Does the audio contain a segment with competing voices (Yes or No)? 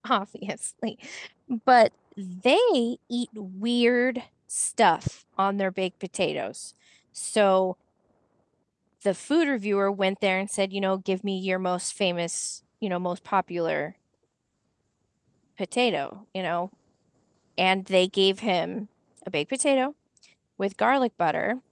No